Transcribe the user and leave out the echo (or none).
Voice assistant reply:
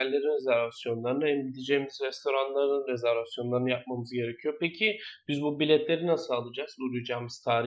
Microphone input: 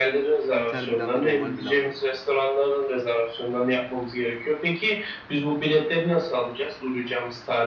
Inter Milan ve normal Milan'dan.